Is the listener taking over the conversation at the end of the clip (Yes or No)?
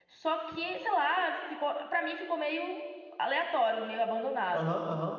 Yes